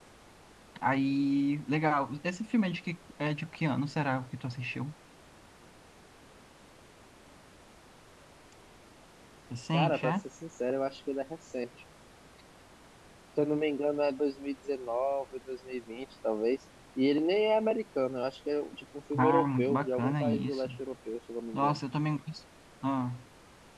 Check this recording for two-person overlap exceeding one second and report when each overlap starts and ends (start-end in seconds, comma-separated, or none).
19.2-20.7